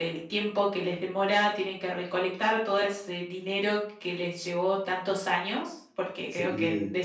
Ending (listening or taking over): listening